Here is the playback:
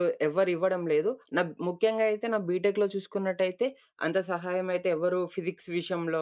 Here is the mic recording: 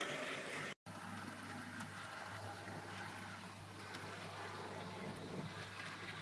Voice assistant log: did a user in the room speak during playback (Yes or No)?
No